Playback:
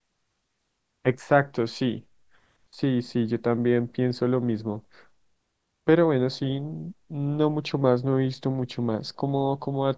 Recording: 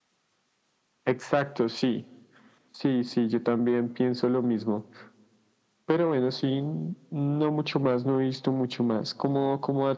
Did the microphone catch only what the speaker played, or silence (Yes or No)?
Yes